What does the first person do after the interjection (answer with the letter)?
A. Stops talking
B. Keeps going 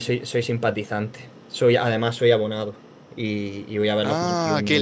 A